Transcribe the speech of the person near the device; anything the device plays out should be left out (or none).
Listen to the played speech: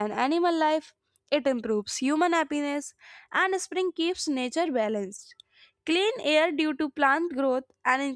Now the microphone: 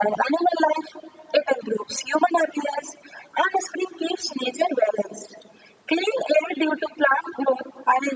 none